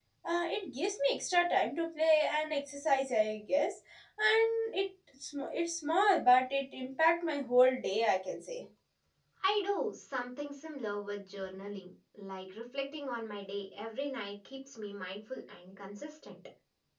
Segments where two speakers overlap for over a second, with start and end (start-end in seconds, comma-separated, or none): none